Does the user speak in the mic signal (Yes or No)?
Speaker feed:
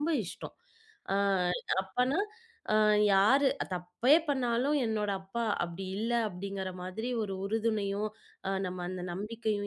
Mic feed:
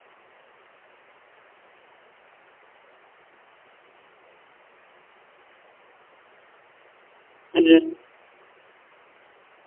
Yes